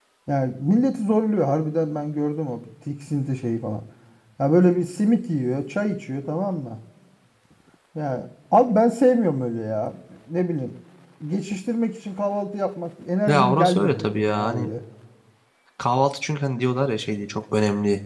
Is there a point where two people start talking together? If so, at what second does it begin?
13.3 s

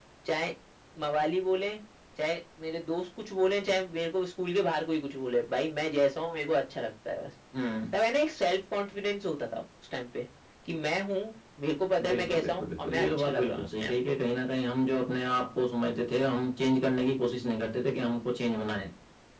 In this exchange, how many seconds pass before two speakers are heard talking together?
12.0 s

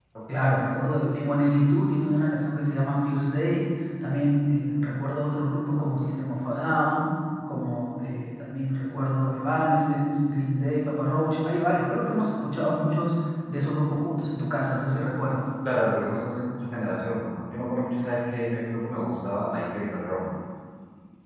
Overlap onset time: none

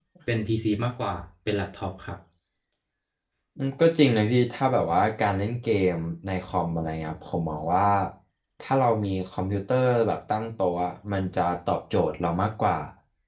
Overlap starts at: none

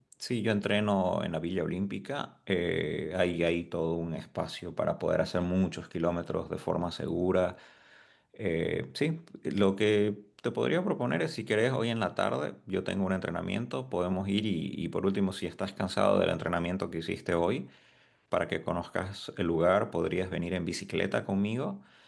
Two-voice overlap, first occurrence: none

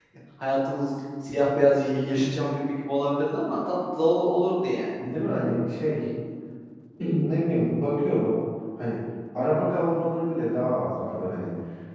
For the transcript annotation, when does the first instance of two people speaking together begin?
none

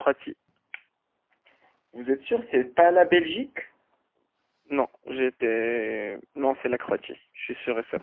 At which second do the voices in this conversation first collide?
none

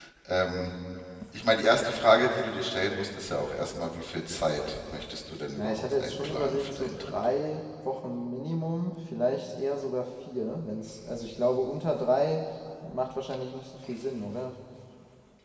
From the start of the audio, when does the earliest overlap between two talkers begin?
5.6 s

